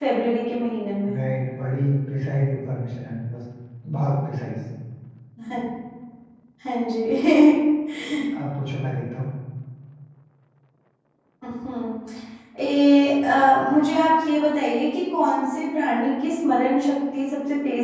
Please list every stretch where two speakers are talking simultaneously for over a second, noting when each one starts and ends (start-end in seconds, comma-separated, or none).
none